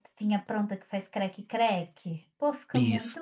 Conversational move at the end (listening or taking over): taking over